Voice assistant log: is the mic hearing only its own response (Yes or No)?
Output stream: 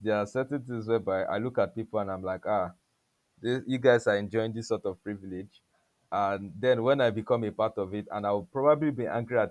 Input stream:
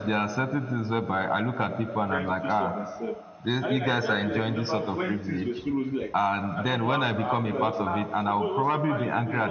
No